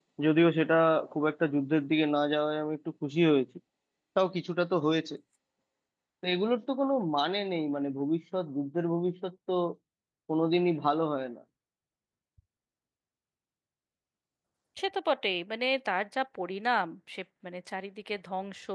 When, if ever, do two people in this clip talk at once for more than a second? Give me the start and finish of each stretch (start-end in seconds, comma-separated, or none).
none